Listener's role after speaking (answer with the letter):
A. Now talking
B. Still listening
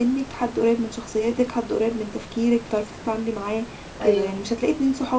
B